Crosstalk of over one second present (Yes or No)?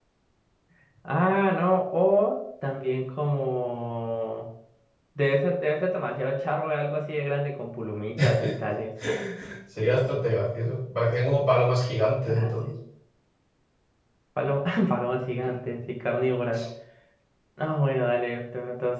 No